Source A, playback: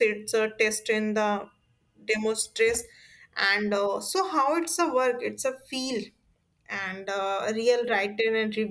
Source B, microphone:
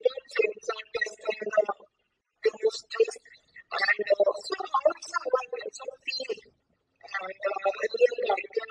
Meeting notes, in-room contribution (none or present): none